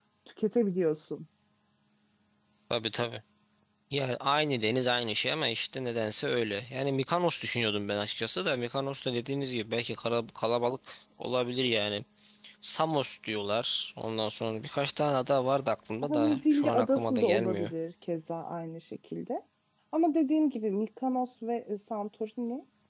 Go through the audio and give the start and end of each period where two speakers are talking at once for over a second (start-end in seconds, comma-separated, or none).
16.0-17.7